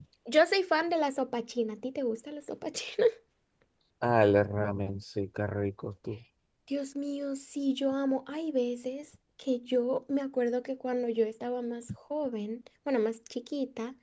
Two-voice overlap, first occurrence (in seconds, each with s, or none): none